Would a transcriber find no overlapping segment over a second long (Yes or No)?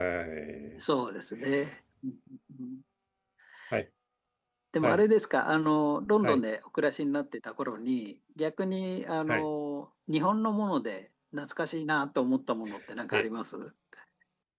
Yes